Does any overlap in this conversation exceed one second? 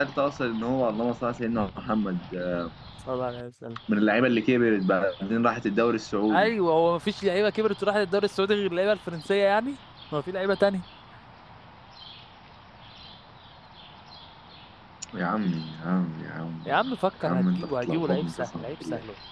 Yes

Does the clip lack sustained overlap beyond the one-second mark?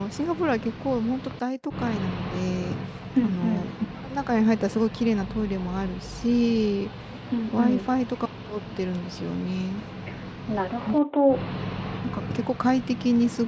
Yes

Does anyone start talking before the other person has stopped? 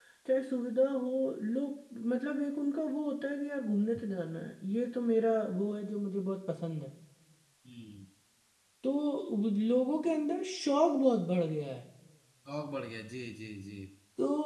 No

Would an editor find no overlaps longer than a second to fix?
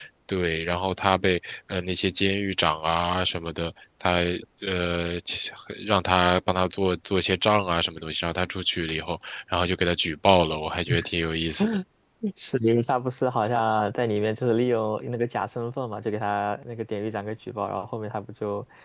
Yes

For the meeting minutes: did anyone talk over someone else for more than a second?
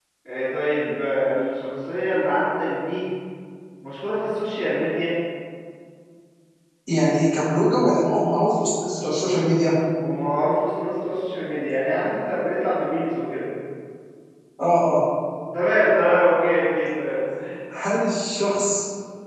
No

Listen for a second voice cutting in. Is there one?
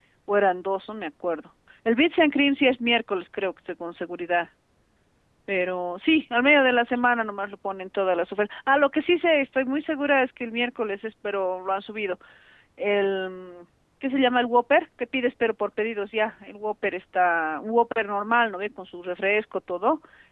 No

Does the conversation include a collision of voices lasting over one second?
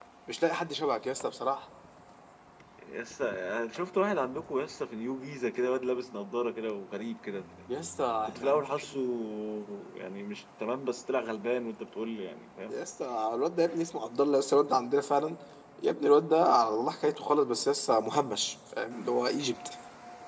No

